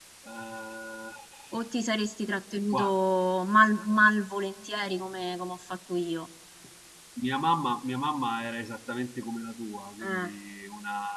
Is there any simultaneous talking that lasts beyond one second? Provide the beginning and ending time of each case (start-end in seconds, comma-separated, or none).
none